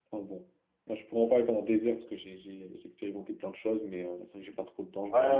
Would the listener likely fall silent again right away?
No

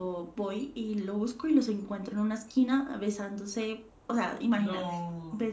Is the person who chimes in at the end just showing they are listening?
Yes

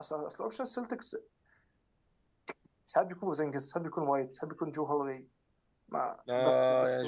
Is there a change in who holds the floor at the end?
Yes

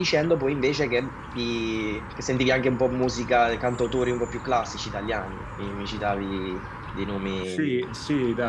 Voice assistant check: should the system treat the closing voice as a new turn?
Yes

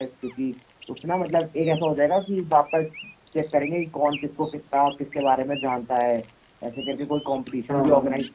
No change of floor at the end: Yes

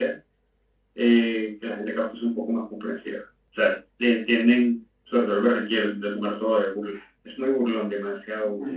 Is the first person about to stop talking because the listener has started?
Yes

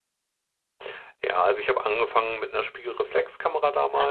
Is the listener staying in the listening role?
Yes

